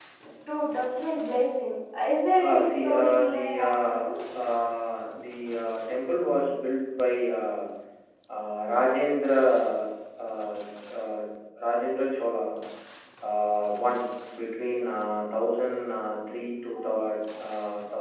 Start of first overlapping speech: 2.4 s

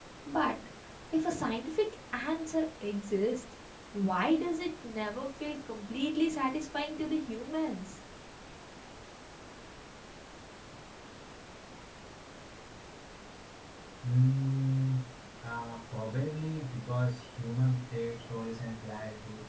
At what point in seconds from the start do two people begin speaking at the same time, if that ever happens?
none

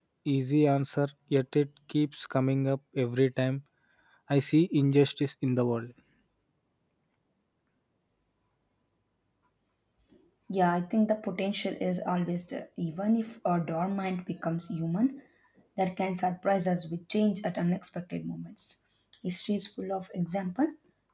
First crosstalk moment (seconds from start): none

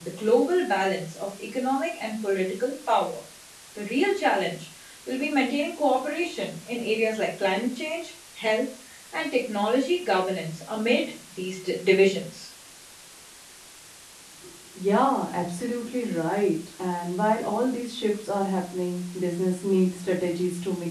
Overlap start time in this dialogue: none

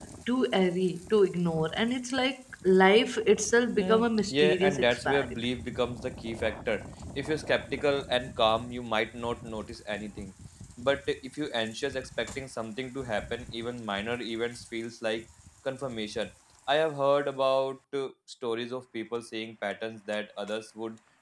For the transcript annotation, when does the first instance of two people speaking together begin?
3.8 s

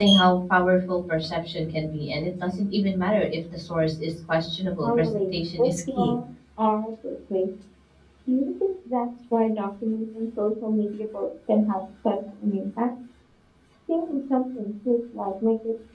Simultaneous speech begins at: 4.8 s

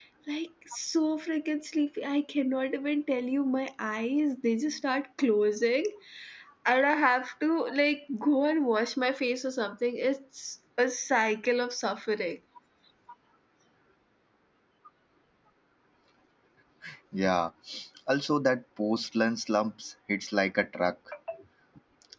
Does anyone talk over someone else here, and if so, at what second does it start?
none

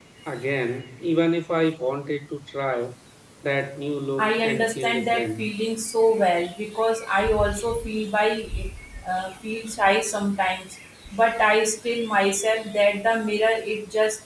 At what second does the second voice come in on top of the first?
4.2 s

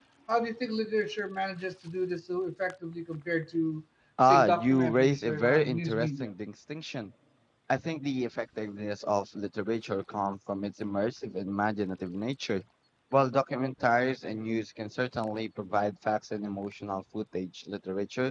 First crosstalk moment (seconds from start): 4.2 s

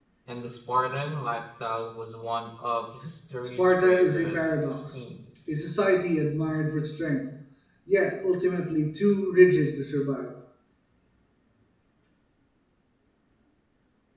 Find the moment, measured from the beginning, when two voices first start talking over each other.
3.6 s

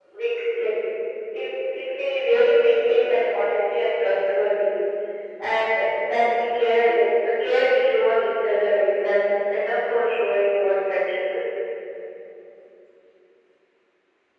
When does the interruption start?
none

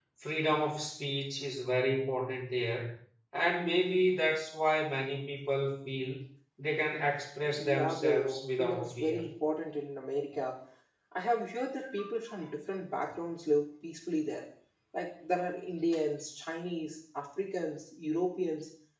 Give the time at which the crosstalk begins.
7.6 s

